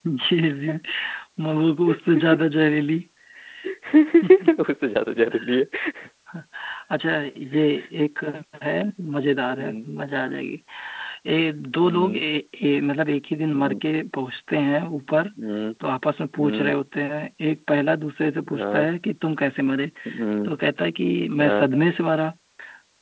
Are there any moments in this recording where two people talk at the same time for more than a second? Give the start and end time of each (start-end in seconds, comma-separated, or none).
none